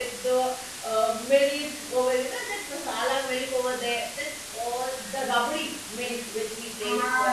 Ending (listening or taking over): taking over